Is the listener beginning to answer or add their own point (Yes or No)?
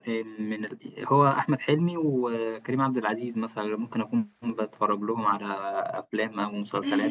Yes